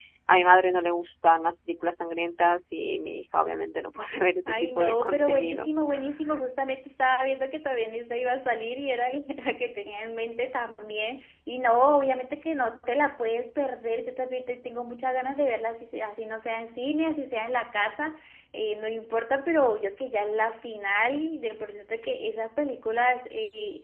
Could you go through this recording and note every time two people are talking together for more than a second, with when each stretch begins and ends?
4.5-5.7

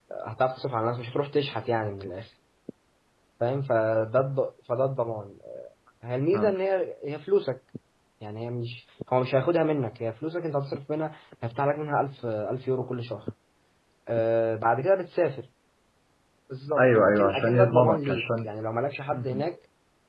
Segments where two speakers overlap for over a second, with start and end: 16.8-18.5

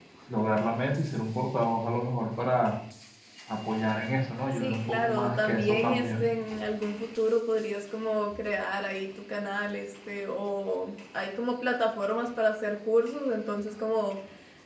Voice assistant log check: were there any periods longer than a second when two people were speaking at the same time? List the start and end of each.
4.5-6.2

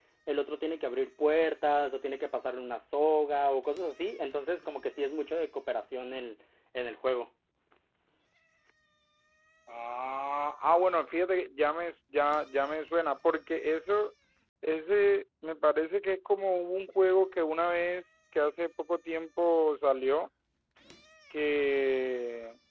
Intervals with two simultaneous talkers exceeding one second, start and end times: none

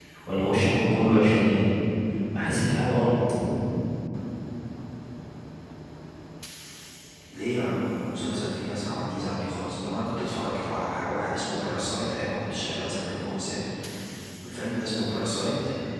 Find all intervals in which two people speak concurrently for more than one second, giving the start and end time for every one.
none

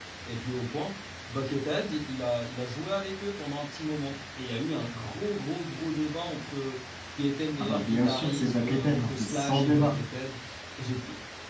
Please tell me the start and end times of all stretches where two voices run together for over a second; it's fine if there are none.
7.6-10.0

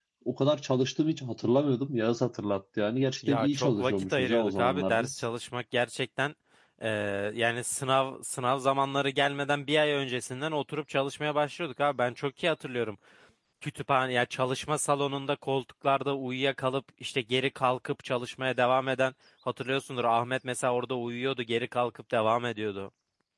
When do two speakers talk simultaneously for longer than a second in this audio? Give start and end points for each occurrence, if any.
3.3-5.2

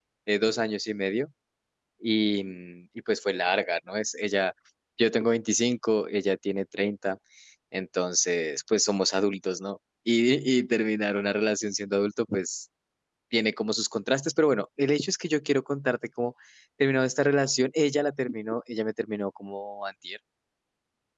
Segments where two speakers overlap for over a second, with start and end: none

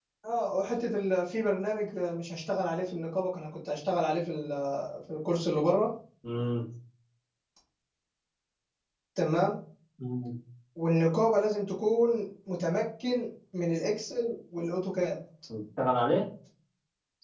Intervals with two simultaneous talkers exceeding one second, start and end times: none

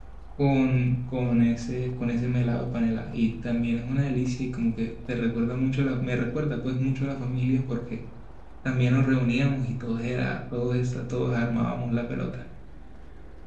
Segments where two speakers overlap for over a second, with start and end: none

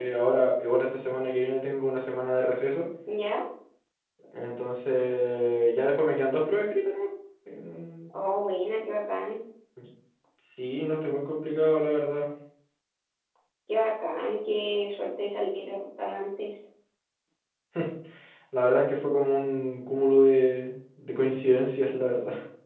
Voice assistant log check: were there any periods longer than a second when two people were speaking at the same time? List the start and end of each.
none

